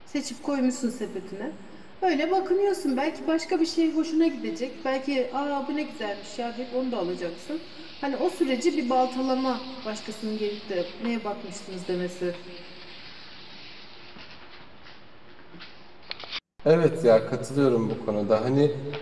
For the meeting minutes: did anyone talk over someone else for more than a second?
No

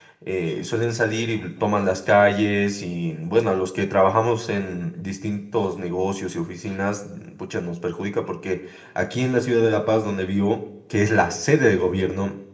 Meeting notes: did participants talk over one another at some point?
No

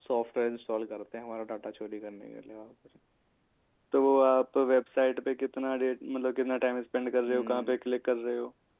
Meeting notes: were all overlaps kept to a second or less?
Yes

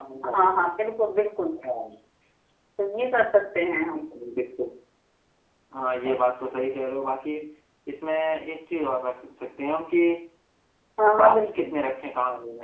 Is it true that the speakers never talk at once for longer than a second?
Yes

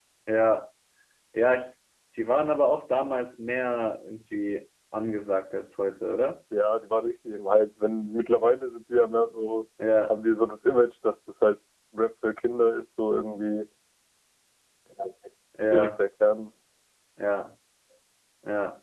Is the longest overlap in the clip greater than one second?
No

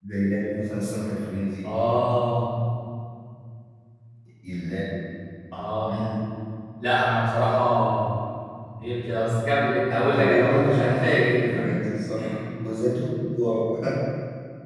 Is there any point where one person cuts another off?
Yes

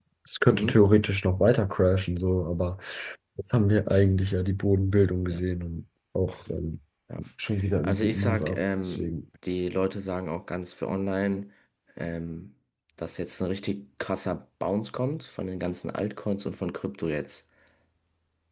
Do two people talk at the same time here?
Yes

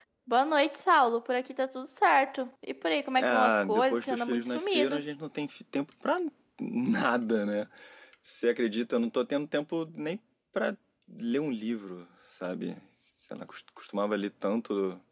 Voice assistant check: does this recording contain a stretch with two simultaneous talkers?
Yes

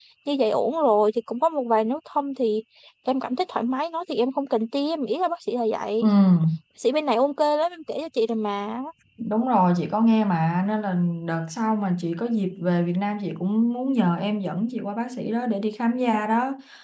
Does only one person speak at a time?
Yes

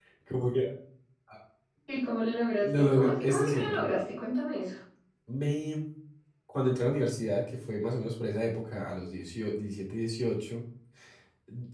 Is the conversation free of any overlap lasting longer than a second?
No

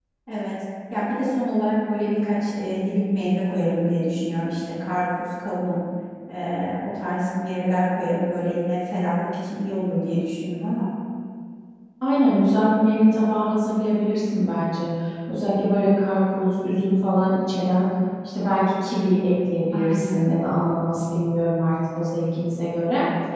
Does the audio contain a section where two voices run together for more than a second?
No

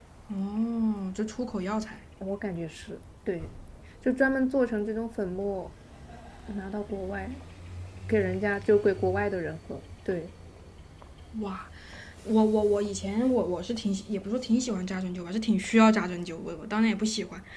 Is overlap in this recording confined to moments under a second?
Yes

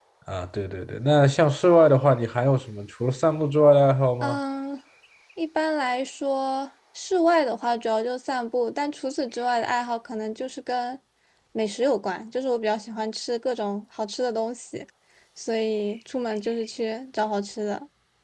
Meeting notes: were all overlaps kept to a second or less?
Yes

